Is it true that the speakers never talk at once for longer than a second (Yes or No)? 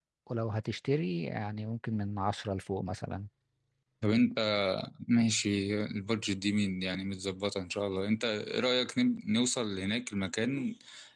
Yes